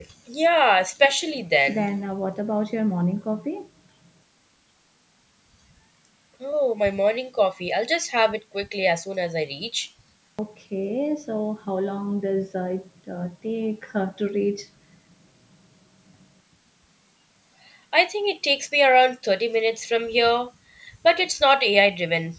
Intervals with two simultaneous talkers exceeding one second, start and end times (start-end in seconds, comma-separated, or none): none